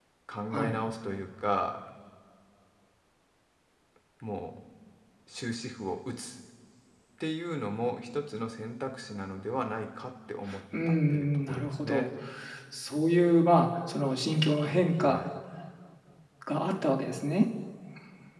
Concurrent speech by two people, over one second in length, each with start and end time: 10.9-12.1

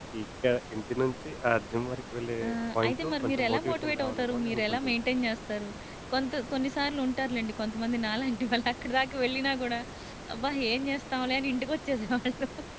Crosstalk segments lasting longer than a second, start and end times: 2.9-4.9

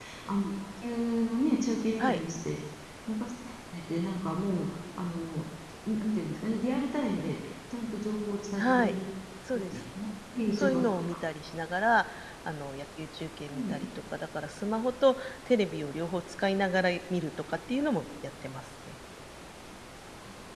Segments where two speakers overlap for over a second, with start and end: none

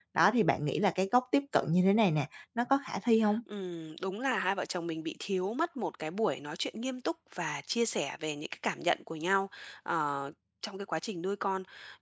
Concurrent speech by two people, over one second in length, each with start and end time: none

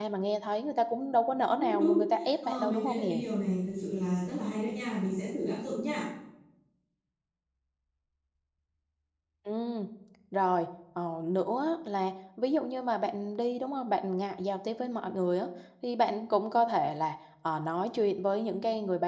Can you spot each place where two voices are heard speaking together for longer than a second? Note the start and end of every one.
1.6-3.2

